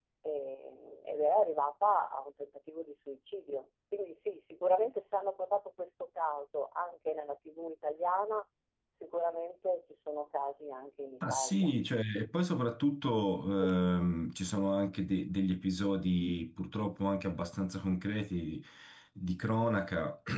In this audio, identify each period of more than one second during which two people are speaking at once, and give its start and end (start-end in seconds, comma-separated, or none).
none